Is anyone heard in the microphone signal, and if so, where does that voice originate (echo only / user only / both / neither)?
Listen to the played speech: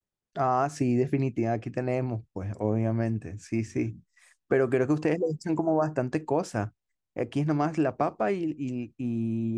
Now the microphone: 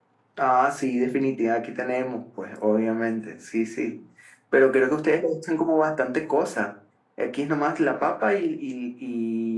echo only